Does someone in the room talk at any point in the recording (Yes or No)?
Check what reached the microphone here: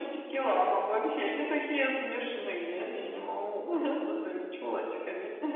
No